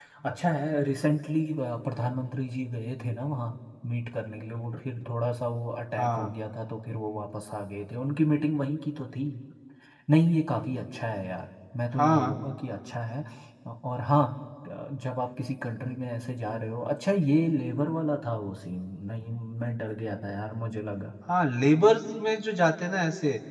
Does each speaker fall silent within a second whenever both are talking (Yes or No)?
Yes